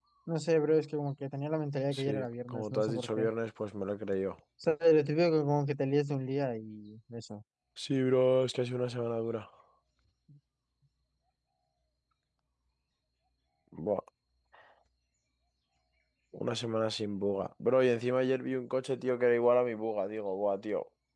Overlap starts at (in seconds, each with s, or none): 1.9 s